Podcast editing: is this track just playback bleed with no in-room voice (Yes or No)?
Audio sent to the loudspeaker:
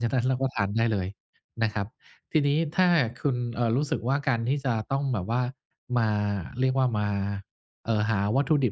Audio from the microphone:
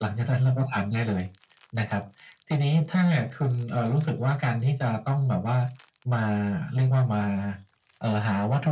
Yes